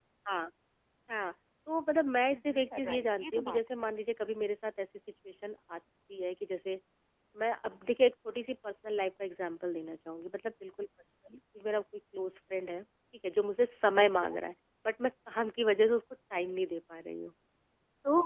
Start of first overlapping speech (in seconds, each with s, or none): 2.3 s